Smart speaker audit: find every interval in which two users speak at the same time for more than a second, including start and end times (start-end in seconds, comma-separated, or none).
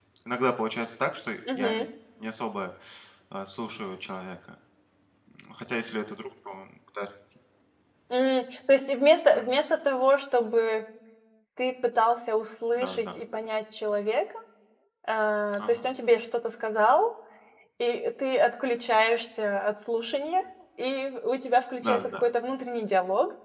none